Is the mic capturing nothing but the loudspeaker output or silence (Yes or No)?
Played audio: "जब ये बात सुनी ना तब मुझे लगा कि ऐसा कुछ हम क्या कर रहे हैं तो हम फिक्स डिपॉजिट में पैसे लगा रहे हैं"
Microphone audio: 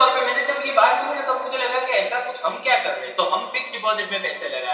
Yes